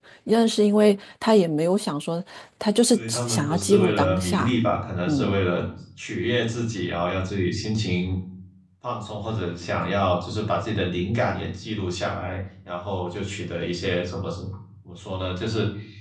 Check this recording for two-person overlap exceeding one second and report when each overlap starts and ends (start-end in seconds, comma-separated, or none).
2.9-4.5